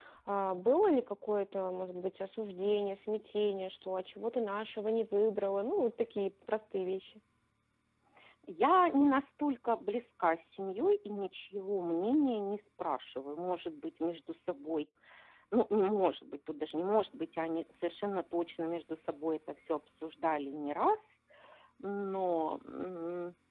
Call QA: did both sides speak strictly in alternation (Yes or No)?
Yes